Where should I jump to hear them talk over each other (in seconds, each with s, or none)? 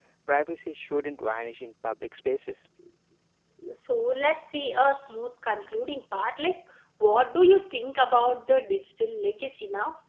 none